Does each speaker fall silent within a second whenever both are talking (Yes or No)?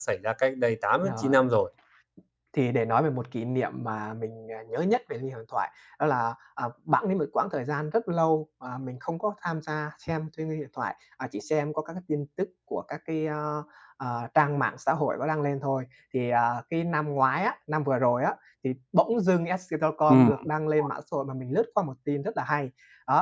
Yes